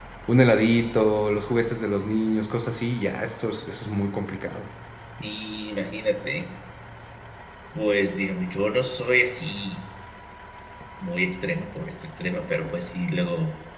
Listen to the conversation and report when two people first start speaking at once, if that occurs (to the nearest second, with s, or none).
none